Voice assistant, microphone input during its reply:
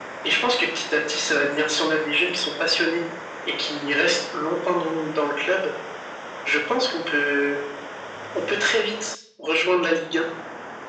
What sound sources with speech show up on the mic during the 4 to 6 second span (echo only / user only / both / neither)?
echo only